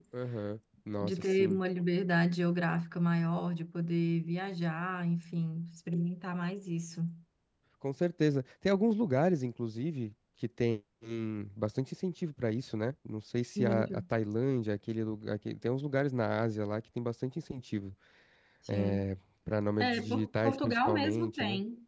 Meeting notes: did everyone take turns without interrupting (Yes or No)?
No